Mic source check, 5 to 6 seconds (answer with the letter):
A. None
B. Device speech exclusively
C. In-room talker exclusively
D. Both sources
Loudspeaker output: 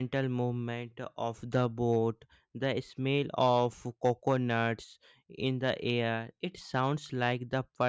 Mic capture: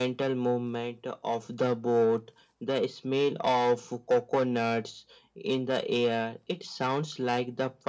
B